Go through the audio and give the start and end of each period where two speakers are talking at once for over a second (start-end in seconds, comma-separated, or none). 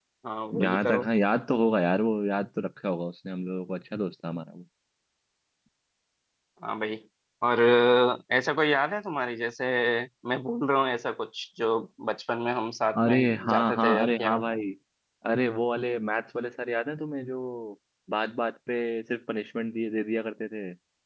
13.1-14.4